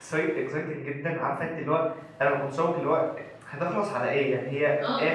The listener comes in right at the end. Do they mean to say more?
Yes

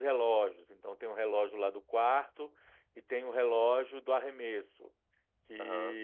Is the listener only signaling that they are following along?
Yes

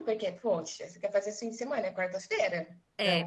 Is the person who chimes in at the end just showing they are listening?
No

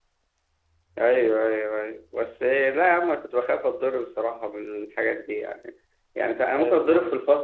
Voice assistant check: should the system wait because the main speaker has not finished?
Yes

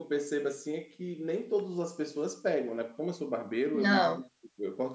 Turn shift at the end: No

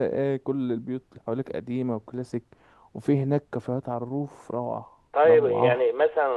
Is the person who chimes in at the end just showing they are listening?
No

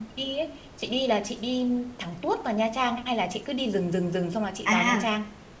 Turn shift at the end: Yes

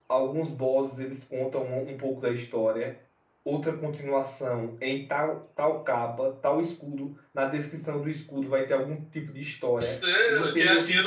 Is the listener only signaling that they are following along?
No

